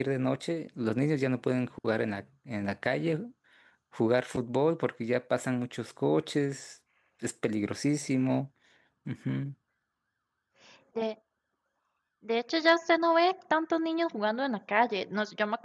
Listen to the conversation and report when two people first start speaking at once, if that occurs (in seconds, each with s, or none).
none